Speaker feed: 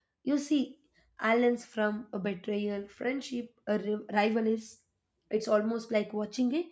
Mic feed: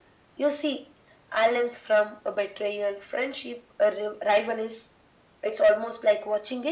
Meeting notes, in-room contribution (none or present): none